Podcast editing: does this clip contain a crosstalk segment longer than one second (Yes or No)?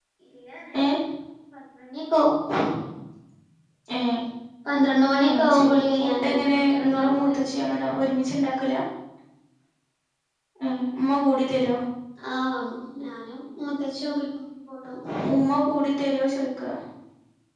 Yes